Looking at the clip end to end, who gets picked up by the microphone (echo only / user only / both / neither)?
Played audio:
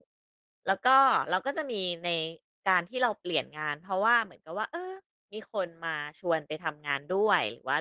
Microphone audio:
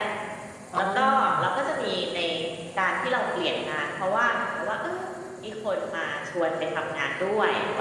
both